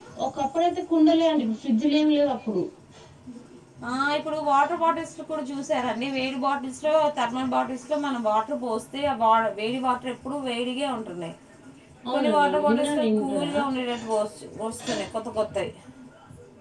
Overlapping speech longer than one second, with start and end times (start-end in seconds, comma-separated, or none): 12.1-13.5